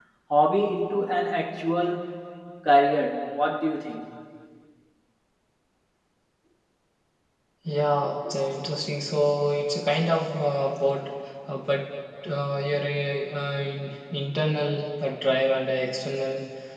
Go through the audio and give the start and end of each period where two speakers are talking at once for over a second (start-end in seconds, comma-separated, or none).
none